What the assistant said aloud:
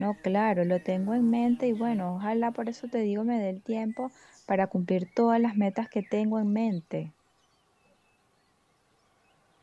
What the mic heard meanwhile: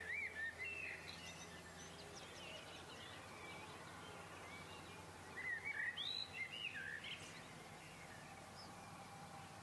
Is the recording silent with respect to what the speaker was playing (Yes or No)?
Yes